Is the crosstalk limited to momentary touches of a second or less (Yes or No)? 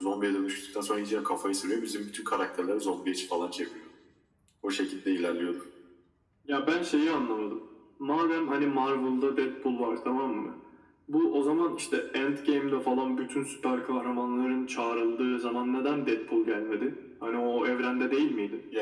Yes